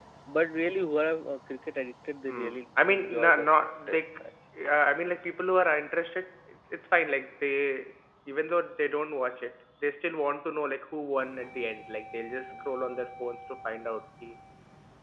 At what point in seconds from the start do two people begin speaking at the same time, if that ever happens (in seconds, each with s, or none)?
2.3 s